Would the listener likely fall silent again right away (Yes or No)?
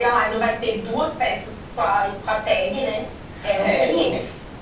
No